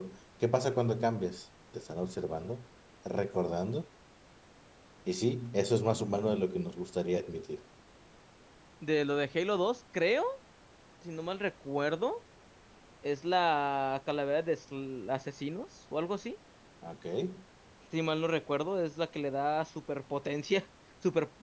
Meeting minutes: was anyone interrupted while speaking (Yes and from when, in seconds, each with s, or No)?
No